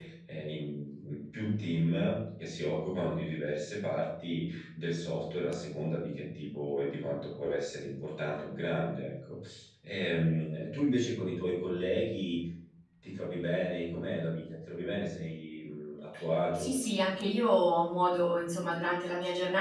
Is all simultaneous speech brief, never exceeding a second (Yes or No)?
Yes